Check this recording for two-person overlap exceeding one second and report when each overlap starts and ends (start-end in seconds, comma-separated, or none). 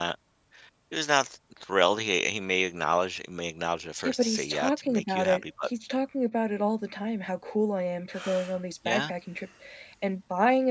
4.0-5.7